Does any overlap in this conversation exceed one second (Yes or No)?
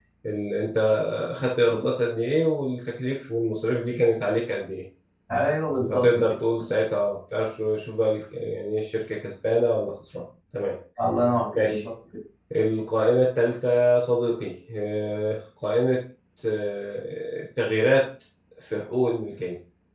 No